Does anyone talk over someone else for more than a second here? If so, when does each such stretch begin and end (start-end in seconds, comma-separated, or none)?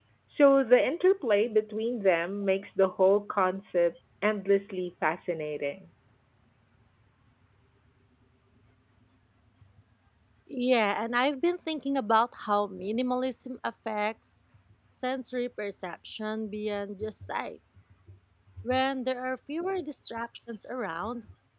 none